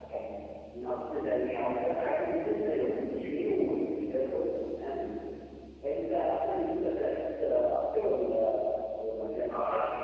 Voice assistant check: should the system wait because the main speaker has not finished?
No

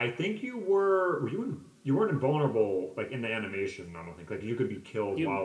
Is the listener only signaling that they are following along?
No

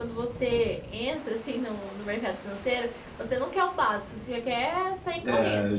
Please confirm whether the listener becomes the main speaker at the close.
Yes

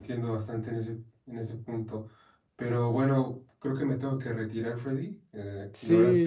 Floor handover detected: Yes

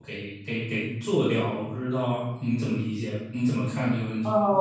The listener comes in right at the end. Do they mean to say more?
Yes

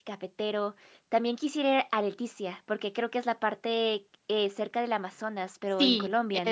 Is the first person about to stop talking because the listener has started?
Yes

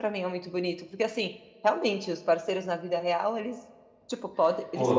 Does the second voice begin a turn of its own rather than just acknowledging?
No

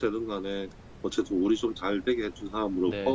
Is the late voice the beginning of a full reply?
Yes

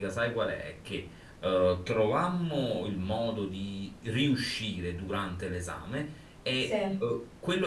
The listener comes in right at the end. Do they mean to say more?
No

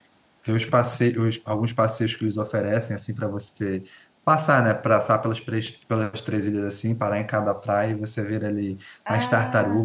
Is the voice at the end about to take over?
No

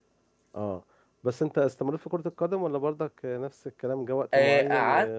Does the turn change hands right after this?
Yes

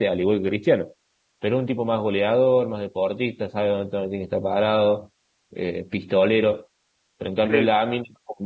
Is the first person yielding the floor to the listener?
No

